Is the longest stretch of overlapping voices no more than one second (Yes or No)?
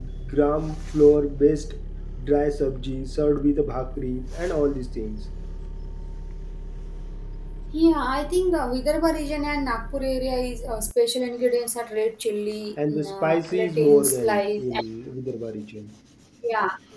No